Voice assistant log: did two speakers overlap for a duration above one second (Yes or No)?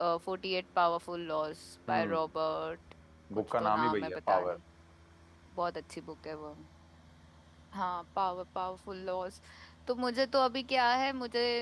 Yes